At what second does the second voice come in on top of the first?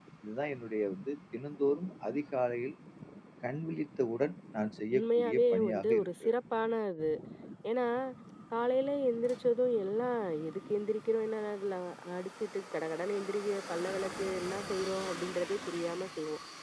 5 s

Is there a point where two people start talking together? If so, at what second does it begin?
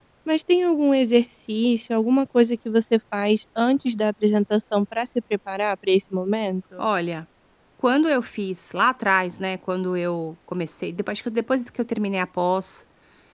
none

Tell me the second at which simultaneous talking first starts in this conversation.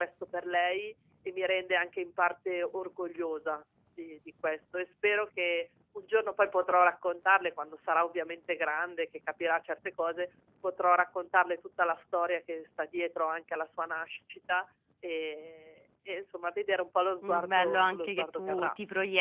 17 s

